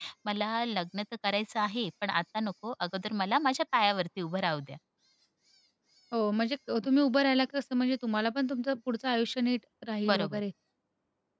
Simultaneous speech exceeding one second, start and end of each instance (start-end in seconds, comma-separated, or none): none